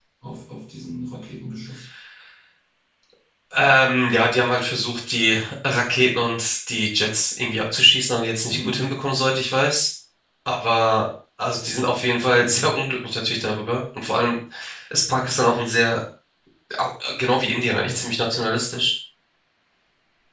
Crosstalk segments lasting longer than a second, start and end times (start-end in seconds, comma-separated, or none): none